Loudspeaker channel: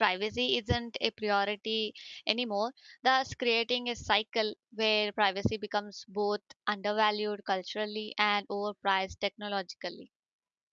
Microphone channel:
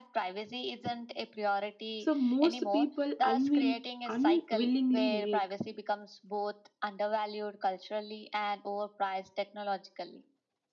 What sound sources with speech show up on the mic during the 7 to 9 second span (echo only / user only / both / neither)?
echo only